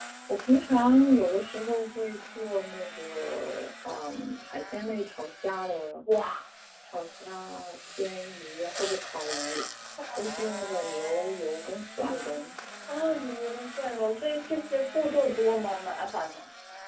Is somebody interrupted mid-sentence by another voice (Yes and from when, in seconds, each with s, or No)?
No